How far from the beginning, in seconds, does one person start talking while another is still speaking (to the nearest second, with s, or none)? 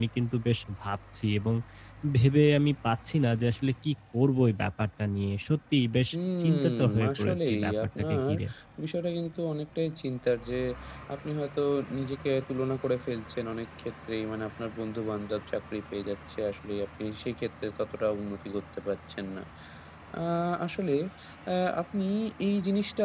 6 s